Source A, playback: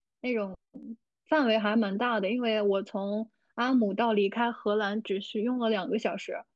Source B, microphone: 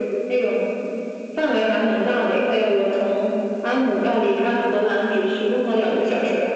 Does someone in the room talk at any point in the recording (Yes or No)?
No